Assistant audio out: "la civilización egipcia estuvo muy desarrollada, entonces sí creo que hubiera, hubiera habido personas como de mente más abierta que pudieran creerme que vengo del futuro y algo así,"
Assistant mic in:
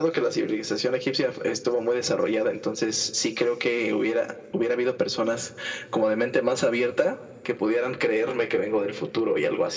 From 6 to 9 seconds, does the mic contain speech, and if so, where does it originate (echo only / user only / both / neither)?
echo only